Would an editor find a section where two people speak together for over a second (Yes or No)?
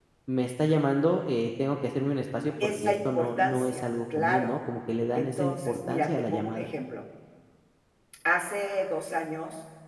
Yes